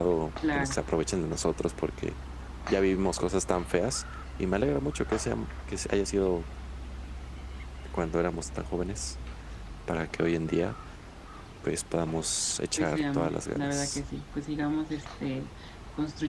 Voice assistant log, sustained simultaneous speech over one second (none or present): present